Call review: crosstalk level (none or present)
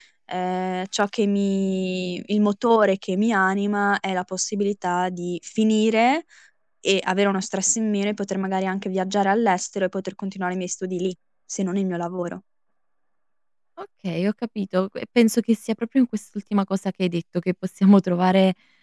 none